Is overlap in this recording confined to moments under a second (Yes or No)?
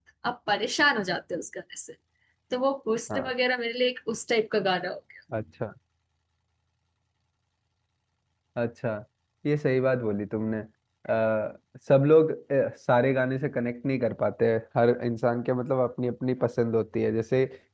Yes